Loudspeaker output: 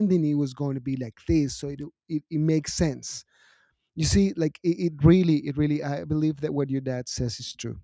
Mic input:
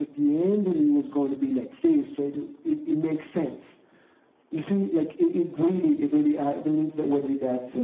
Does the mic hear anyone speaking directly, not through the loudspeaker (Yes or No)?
No